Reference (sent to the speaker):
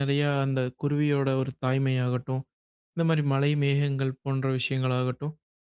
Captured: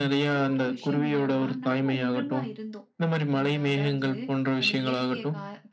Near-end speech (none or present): present